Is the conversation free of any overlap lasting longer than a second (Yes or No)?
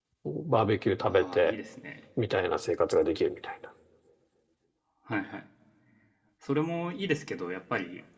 Yes